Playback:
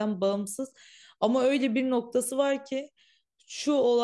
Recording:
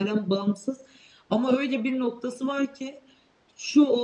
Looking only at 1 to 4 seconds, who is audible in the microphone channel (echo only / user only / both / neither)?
echo only